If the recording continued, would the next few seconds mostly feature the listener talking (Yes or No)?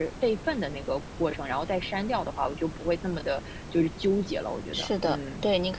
Yes